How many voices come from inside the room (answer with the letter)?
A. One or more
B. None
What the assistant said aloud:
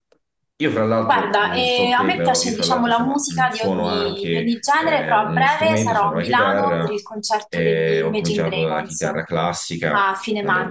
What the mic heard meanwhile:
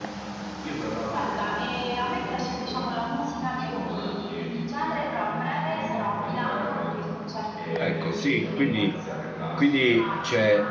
A